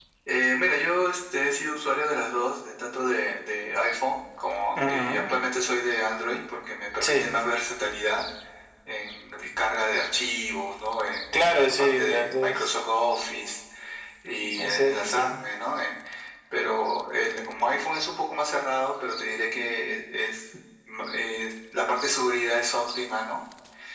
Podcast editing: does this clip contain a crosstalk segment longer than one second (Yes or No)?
Yes